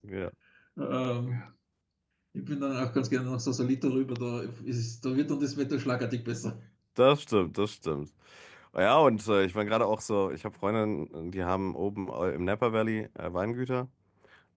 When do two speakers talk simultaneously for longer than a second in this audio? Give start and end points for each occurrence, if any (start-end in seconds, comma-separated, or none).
none